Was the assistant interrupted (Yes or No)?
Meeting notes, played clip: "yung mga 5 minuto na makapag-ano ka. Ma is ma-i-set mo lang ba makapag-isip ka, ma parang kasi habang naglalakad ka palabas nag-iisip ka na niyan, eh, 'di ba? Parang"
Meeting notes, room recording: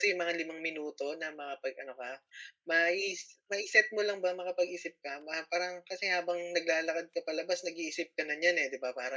No